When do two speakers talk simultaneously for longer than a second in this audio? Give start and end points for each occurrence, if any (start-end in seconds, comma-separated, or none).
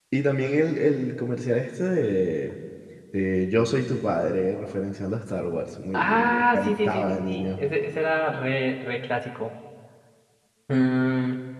5.9-7.6